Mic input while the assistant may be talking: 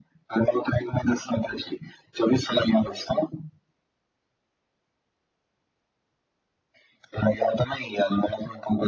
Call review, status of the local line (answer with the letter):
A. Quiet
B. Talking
A